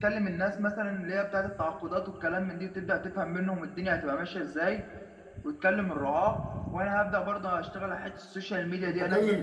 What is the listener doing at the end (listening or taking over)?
taking over